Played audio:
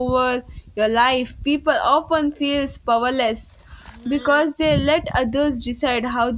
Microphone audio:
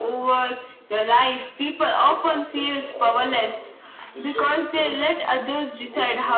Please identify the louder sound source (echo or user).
echo